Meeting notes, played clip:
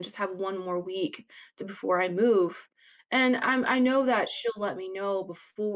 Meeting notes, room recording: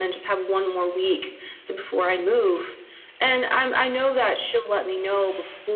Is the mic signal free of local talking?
Yes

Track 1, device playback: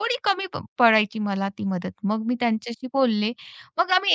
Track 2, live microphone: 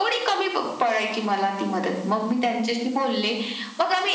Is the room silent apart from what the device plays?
Yes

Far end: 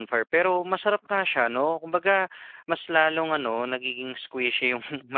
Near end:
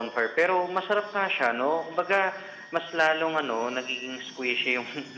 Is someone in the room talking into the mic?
No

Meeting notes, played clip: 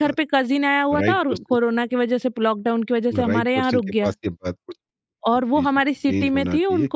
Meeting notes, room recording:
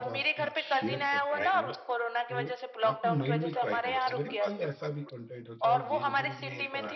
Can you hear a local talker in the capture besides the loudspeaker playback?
Yes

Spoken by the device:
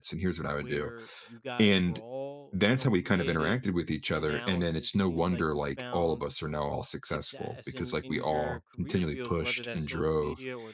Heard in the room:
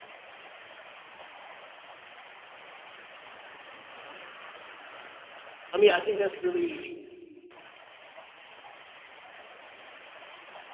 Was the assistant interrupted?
Yes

